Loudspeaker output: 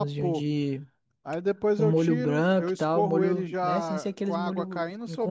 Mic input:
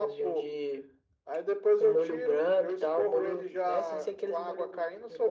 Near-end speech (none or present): none